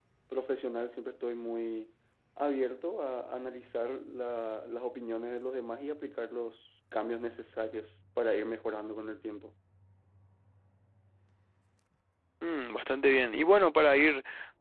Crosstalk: none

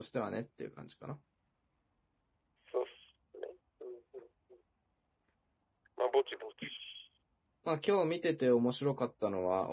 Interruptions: none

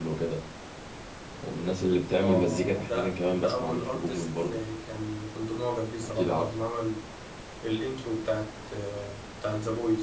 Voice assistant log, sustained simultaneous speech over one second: present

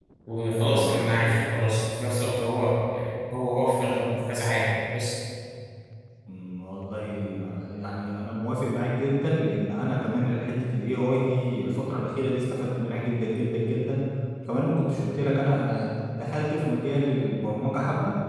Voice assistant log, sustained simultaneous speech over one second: none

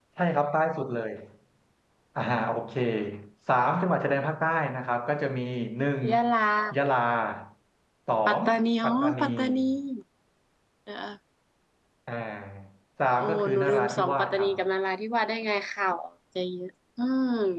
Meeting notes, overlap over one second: present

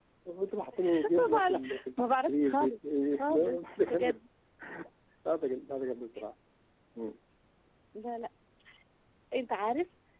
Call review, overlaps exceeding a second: present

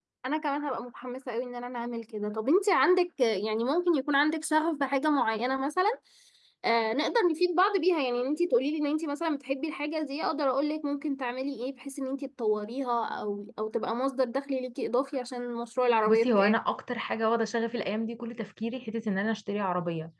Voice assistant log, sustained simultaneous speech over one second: none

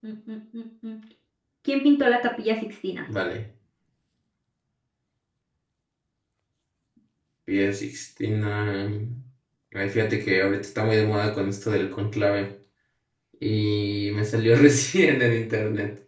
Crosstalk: none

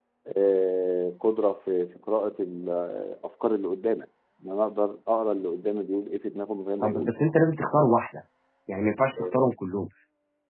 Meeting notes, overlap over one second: none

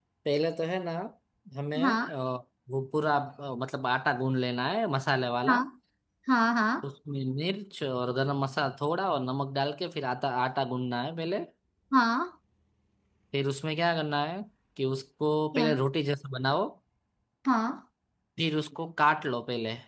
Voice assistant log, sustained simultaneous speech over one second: none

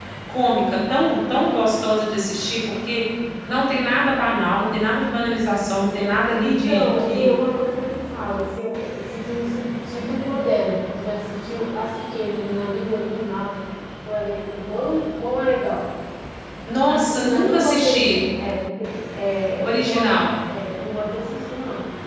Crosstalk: present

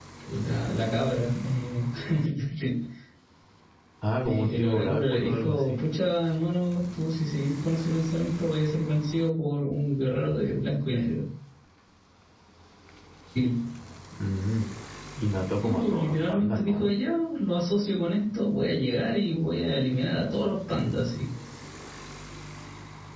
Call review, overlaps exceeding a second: present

